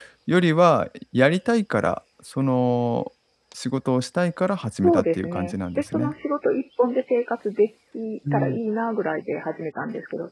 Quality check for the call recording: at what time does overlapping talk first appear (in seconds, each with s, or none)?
4.8 s